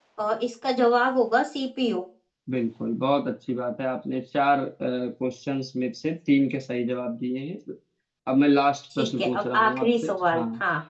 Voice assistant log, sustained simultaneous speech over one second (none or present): present